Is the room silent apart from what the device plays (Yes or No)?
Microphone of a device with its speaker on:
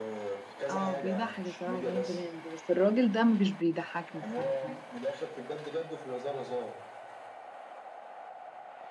No